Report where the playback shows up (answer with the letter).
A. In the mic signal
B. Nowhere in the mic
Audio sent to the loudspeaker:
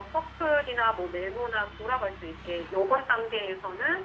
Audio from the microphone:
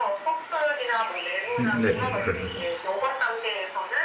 A